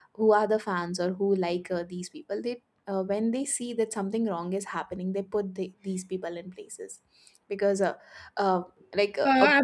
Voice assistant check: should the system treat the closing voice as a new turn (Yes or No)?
Yes